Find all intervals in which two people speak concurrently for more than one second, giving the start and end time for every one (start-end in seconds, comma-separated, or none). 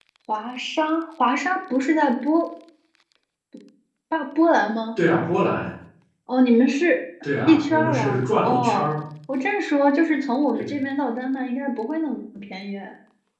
7.5-8.9